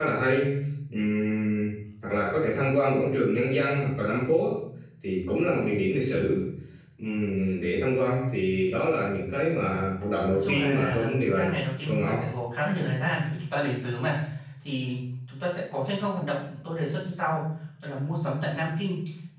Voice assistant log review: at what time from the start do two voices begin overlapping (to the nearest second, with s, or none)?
10 s